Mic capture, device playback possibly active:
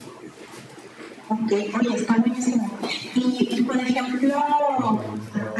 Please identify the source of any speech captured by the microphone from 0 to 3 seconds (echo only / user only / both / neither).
echo only